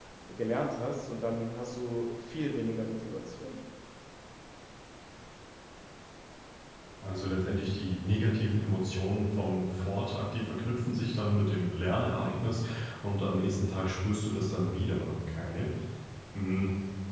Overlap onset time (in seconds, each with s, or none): none